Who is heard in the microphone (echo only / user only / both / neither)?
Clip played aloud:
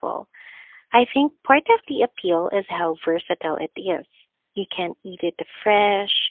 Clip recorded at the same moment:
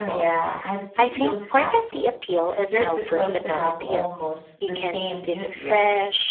both